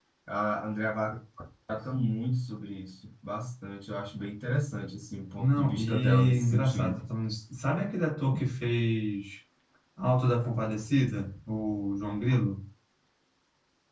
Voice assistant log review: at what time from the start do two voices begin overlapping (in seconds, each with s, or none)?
5.4 s